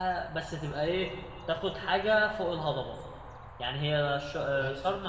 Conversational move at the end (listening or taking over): listening